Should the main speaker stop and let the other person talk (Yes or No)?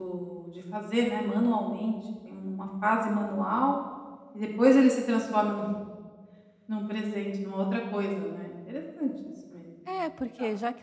Yes